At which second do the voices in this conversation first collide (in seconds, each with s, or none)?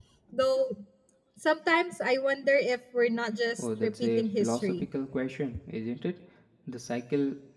3.6 s